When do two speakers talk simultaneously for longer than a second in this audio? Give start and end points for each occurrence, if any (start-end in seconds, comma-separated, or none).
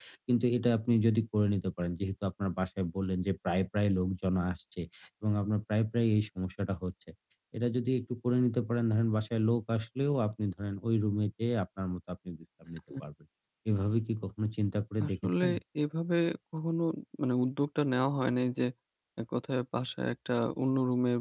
none